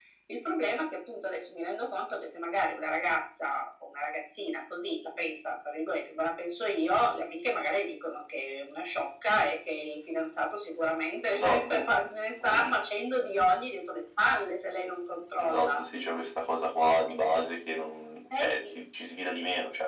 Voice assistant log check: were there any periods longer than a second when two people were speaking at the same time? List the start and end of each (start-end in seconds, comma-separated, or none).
none